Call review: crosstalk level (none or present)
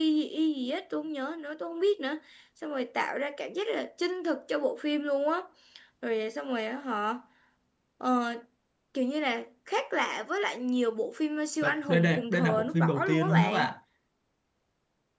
present